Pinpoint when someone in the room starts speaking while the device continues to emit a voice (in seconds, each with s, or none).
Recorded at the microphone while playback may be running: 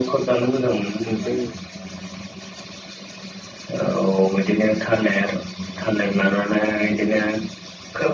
0.9 s